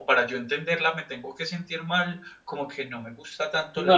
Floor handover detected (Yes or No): Yes